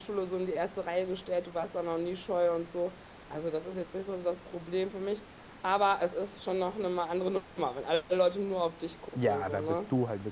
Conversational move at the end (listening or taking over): taking over